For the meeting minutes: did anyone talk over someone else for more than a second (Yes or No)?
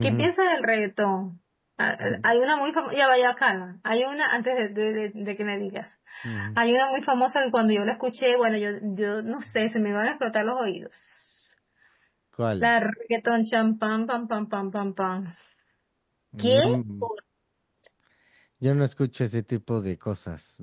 No